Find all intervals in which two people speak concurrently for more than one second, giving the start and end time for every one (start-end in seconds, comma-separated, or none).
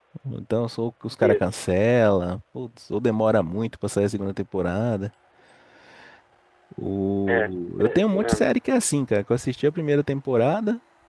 7.3-8.6